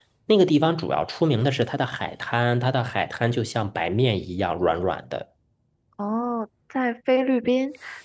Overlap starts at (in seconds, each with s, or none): none